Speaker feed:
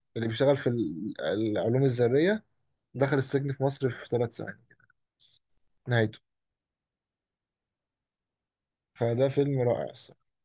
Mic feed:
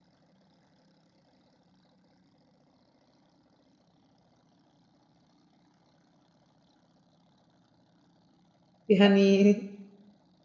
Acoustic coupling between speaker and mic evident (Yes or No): No